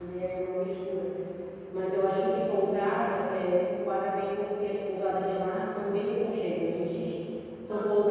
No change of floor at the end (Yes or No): Yes